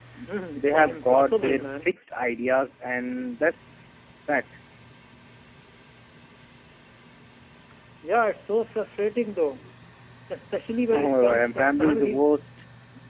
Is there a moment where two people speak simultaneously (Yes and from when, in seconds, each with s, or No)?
Yes, from 0.6 s